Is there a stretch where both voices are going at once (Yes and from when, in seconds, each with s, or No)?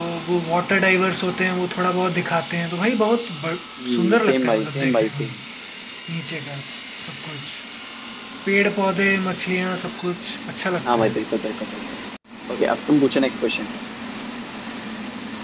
Yes, from 3.8 s